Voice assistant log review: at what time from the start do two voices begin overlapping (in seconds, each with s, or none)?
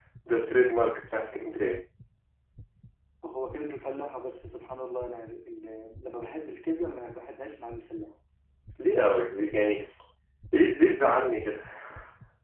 none